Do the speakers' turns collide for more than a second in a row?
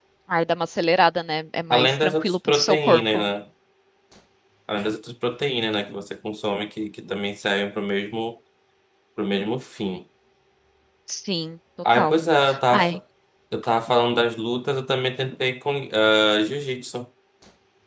Yes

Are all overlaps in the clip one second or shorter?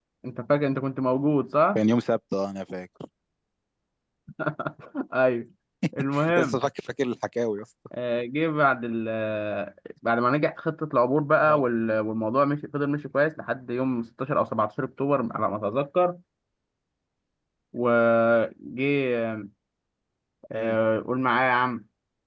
Yes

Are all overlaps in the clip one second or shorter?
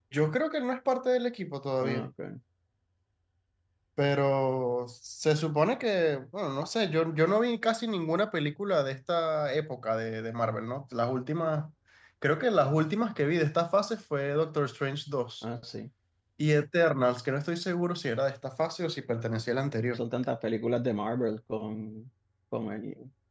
Yes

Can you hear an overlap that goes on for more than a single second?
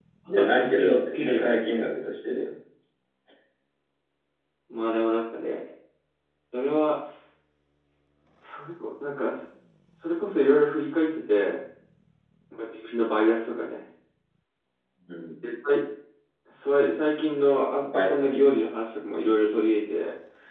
Yes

